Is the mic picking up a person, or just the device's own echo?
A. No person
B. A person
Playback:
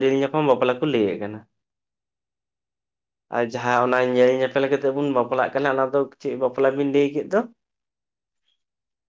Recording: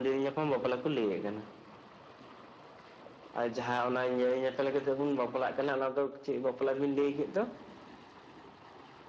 A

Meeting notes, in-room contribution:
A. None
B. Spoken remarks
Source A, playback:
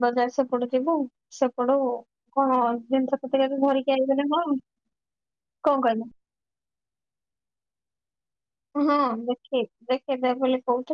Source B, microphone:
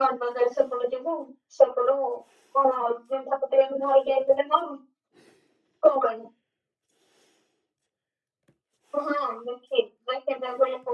A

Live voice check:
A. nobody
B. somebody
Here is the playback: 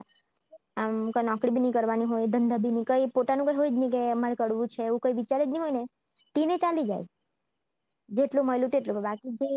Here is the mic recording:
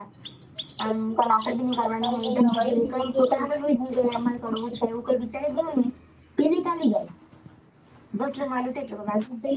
B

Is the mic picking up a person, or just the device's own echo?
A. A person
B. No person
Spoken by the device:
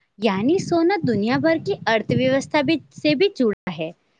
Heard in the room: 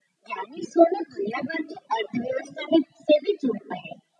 B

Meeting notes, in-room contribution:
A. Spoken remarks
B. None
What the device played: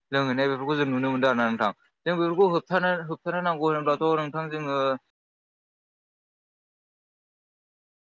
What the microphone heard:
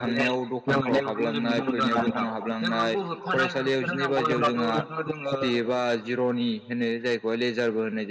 A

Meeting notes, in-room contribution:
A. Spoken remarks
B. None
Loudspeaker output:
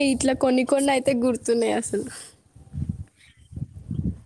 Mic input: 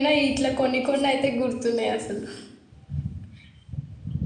B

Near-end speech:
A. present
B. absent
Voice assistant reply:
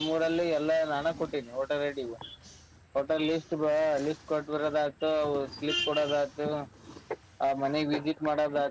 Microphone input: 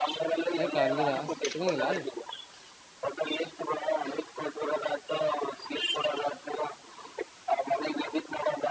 A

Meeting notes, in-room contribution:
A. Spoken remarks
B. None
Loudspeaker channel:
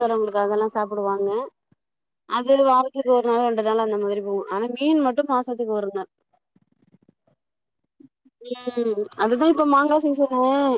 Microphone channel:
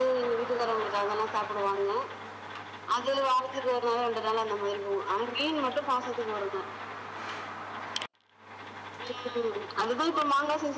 B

